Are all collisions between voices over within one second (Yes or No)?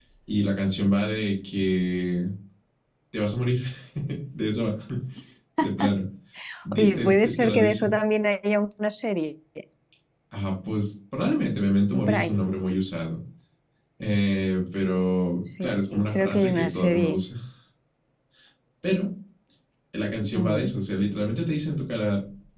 No